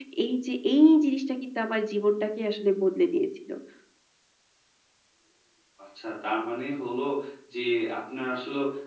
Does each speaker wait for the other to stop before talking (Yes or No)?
Yes